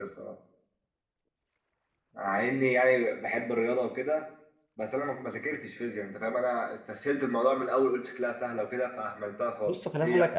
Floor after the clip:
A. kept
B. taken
B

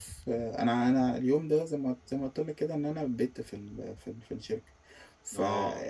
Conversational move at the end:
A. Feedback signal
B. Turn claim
A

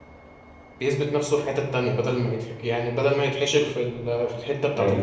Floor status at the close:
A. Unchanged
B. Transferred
B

